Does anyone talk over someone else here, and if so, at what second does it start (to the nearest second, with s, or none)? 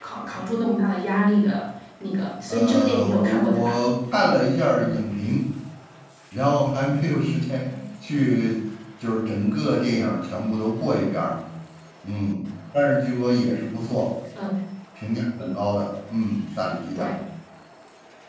3 s